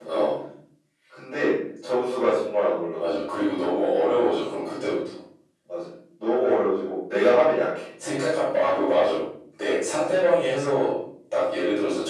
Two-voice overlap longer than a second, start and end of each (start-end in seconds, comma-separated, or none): none